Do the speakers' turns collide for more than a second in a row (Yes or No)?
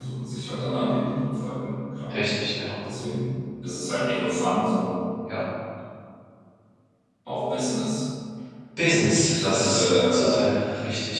Yes